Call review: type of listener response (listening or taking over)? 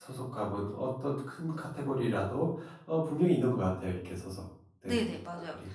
taking over